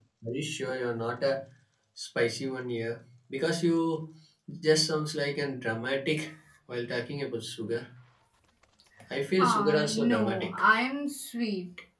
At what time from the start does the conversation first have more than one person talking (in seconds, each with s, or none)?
9.4 s